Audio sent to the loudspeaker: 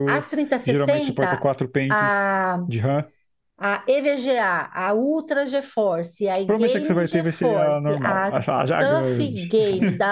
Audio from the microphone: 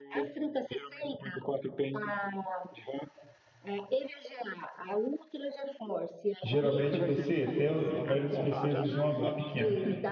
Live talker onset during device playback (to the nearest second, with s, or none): 6 s